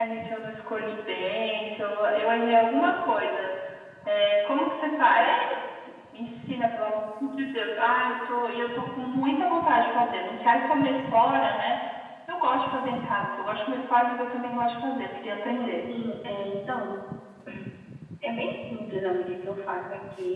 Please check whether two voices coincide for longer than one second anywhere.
No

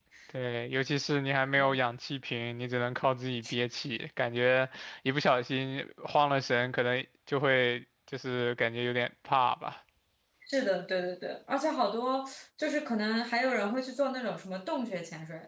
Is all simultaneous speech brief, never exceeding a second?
Yes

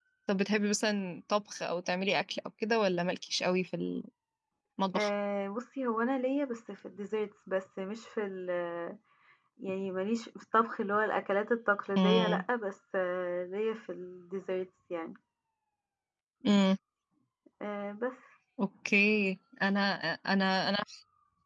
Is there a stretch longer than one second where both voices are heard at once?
No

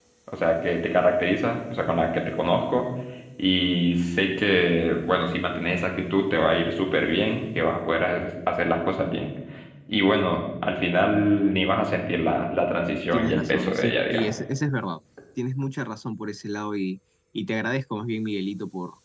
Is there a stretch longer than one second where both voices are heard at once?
Yes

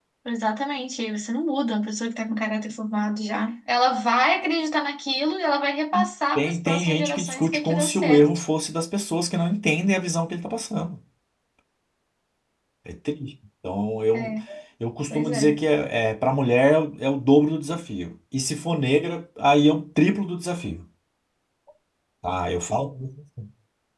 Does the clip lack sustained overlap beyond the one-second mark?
No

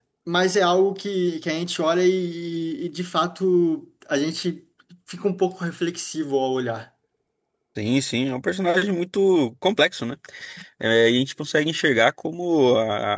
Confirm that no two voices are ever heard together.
Yes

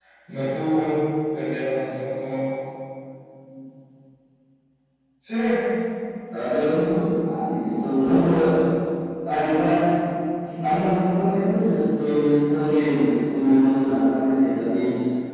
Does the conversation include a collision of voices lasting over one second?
No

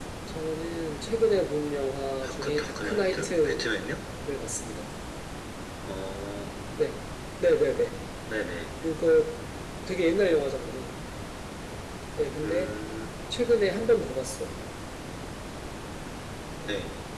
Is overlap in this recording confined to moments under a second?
No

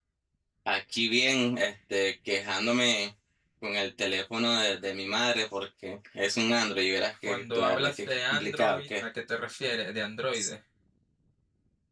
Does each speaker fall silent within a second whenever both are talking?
No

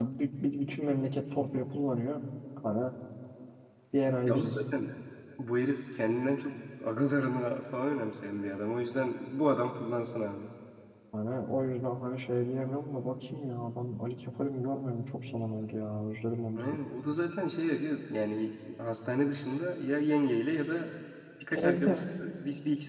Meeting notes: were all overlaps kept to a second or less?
Yes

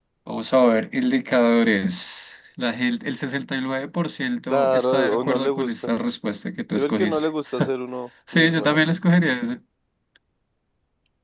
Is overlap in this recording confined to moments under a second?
No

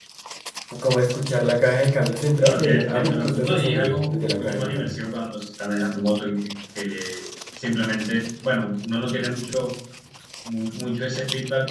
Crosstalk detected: Yes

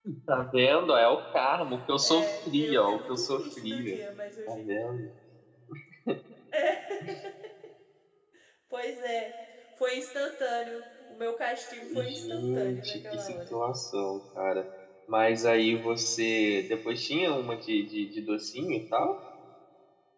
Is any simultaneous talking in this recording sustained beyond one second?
Yes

